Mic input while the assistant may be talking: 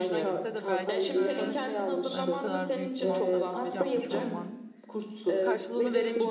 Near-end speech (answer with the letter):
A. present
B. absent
A